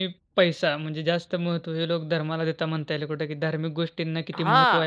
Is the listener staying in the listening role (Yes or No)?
No